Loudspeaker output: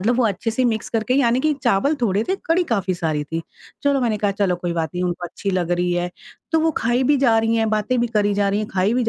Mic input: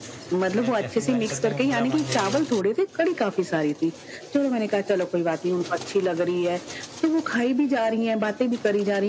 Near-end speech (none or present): present